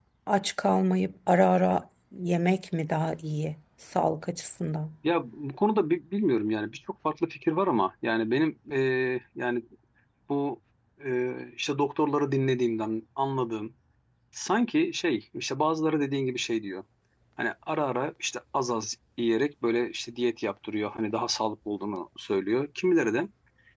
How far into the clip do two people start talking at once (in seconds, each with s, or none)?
none